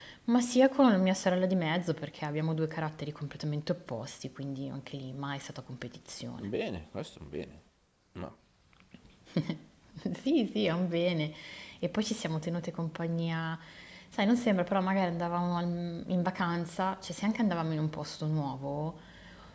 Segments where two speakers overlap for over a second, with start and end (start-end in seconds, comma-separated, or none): none